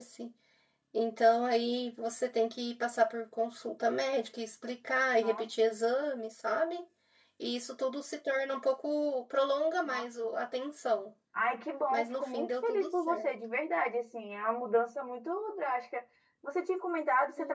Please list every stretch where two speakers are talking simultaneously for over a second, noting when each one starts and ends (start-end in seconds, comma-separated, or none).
11.9-13.3